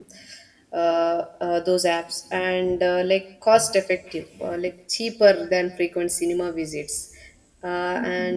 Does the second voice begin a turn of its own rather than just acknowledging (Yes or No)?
No